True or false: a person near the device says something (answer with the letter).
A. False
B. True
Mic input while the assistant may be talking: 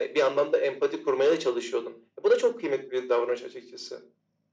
A